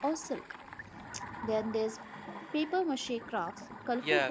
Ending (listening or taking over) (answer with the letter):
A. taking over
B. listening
A